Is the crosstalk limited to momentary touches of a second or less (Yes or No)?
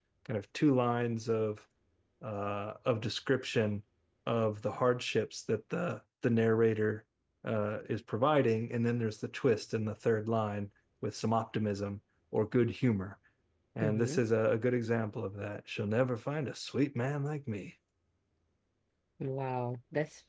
Yes